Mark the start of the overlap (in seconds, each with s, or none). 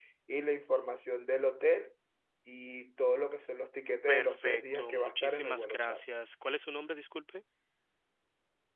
4.1 s